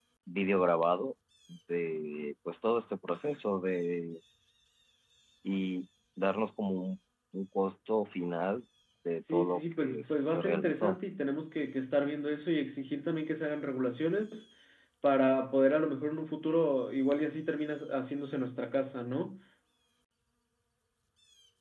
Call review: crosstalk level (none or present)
present